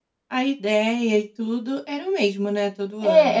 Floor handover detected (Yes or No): Yes